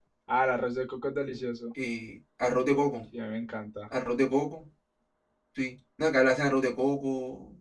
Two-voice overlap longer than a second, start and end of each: none

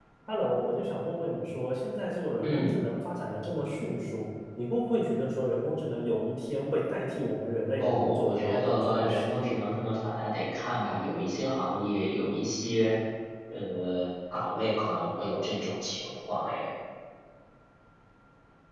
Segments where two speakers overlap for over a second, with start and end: 7.8-9.6

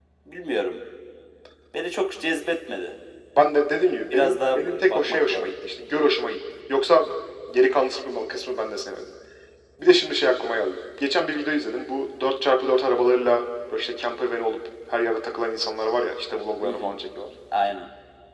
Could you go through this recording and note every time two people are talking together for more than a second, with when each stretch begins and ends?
4.0-5.5

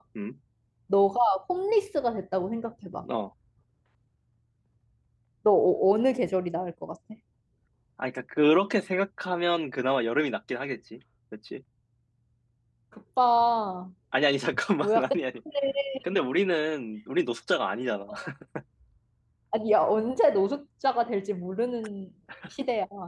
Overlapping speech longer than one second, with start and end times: none

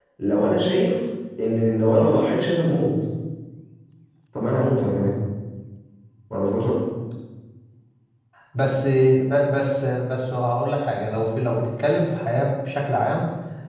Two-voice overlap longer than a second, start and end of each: none

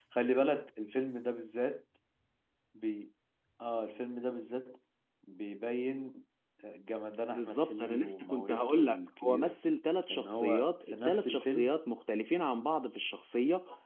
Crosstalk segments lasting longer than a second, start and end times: 7.3-9.6, 10.1-11.7

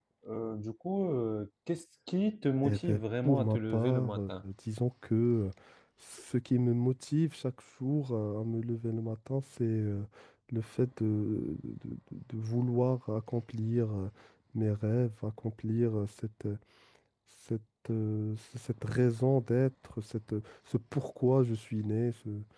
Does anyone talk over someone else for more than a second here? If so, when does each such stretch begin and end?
2.6-4.3

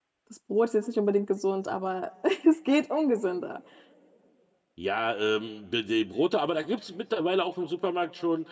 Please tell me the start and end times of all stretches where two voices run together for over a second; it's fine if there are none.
none

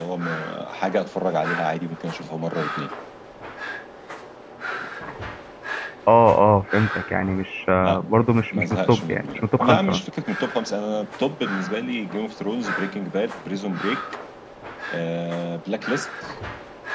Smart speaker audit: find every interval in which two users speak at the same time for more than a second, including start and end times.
8.5-10.0

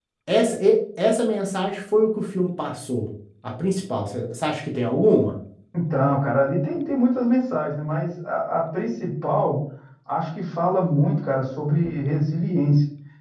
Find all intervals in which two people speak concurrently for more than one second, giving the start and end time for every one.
none

